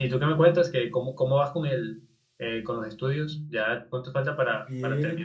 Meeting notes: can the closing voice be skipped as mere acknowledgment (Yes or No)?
No